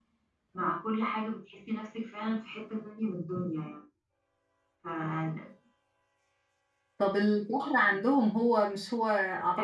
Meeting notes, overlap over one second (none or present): none